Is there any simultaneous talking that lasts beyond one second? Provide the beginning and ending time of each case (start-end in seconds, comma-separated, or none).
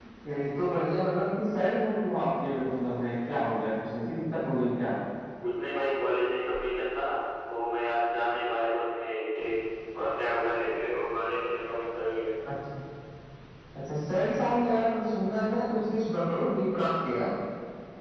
none